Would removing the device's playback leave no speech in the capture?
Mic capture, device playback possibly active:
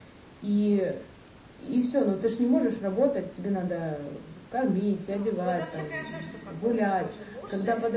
No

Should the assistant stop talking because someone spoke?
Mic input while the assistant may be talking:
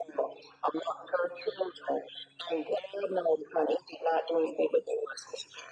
No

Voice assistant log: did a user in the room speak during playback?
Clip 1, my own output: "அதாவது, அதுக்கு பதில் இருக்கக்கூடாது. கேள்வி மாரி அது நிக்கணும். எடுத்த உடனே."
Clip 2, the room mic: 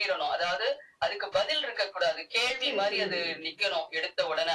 Yes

